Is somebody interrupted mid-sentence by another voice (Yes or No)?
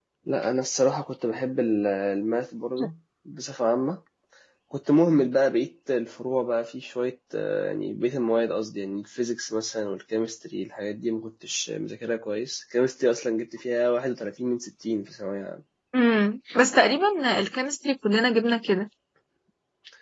No